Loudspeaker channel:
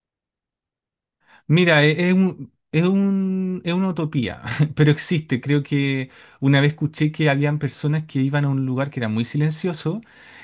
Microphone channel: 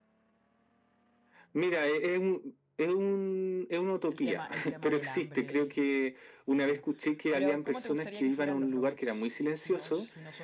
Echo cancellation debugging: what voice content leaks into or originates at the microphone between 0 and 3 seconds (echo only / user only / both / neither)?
echo only